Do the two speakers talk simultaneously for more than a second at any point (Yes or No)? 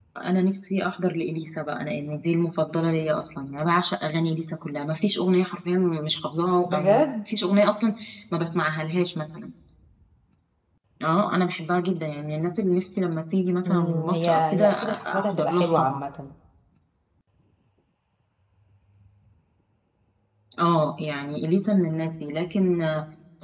Yes